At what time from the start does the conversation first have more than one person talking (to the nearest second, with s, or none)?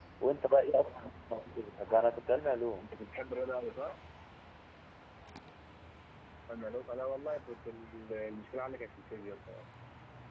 none